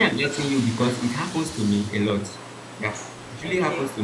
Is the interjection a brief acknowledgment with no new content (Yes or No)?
Yes